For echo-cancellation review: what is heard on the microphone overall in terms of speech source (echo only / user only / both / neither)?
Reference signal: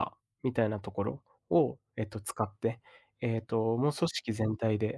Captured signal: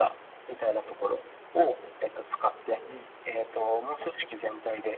both